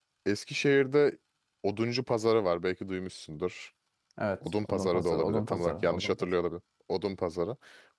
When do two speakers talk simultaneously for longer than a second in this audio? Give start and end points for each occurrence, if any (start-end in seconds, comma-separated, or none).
4.6-6.3